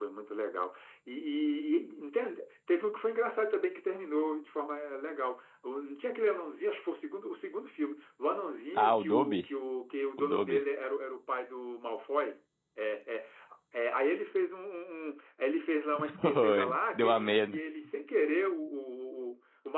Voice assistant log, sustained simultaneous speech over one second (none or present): present